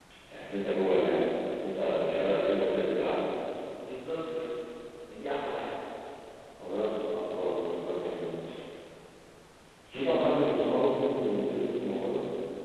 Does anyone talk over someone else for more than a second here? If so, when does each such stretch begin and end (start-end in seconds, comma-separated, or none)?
none